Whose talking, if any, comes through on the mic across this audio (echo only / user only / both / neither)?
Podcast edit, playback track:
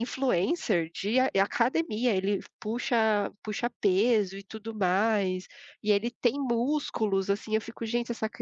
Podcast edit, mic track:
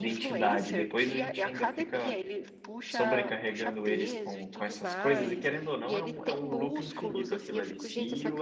both